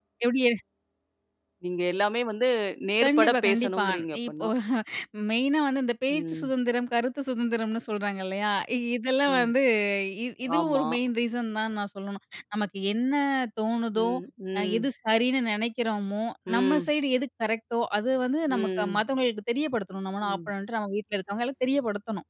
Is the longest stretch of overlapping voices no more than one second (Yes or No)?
No